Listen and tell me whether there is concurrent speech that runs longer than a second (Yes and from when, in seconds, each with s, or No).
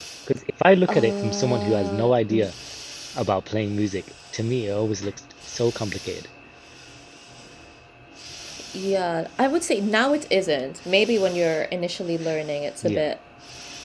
Yes, from 0.9 s